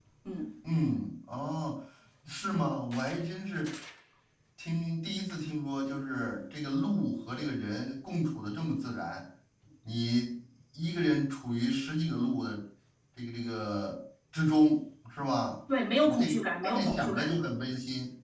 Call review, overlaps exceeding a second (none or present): present